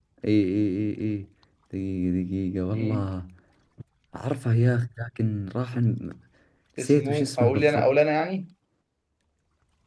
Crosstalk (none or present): present